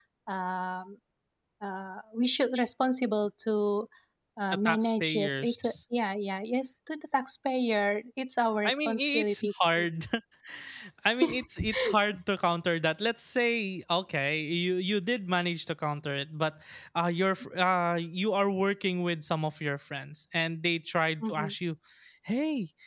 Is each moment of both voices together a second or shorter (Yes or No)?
No